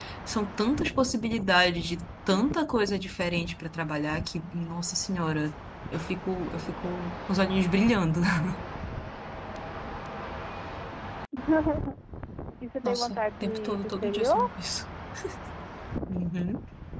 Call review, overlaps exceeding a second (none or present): present